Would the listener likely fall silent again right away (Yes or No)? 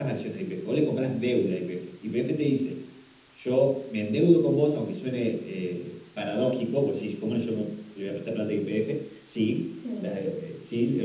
Yes